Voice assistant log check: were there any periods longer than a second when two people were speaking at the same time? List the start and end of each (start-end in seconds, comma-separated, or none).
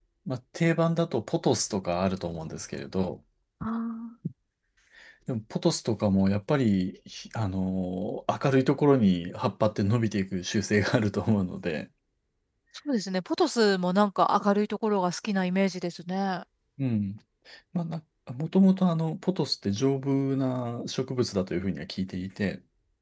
none